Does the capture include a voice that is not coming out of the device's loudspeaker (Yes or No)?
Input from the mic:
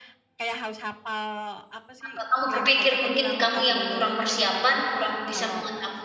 Yes